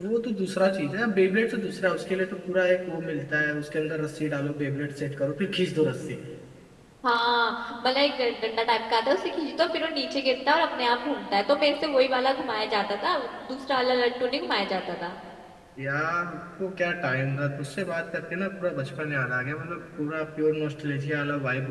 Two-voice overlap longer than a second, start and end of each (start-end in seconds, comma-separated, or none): none